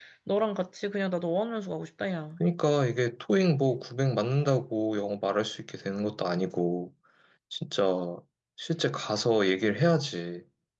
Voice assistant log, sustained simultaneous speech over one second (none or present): none